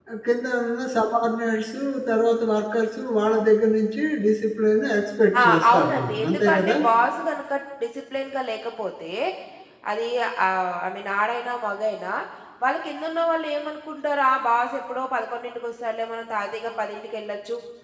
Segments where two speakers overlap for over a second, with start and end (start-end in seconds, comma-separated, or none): 5.4-6.8